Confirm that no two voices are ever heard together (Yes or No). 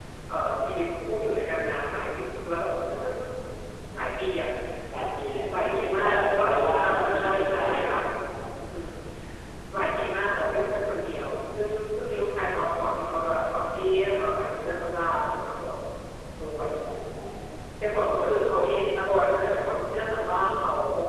No